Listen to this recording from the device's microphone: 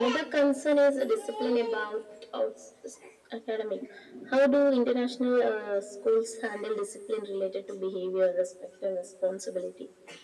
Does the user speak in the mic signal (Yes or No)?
No